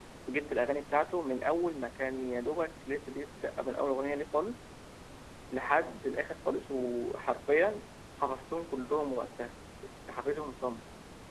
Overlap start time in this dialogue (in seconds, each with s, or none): none